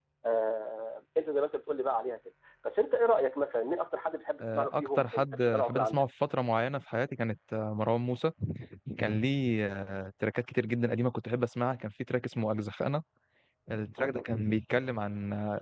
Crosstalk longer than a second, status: present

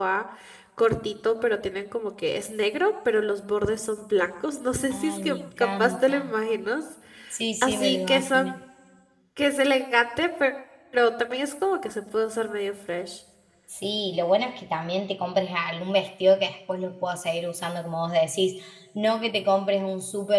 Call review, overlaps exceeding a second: present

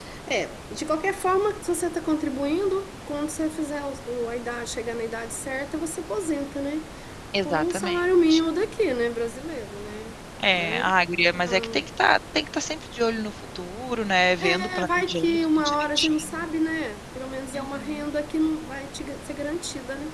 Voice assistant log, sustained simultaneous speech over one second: present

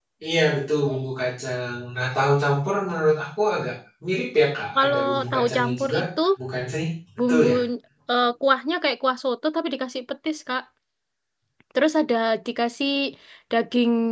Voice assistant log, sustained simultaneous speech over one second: present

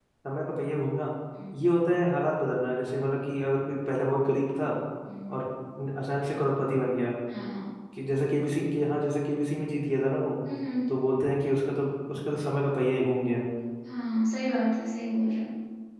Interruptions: none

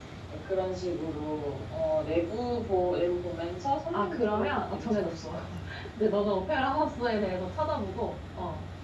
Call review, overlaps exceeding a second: present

